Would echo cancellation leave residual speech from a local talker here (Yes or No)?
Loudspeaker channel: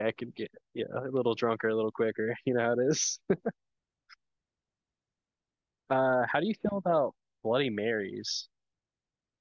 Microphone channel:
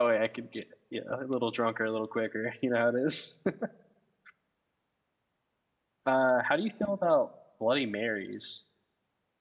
No